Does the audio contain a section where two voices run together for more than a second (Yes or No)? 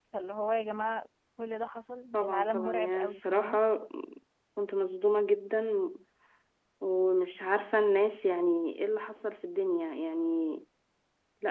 Yes